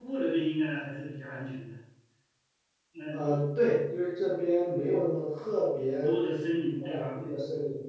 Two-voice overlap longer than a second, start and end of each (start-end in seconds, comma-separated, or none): none